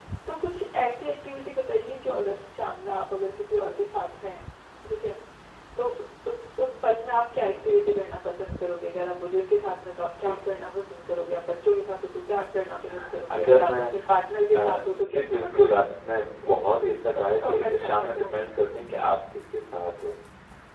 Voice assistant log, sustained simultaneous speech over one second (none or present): present